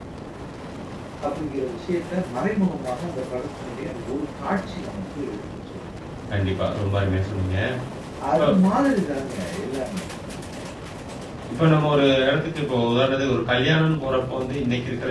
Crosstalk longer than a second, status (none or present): none